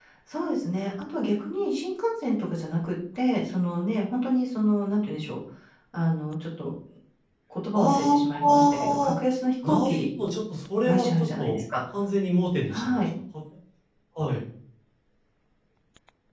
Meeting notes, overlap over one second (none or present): present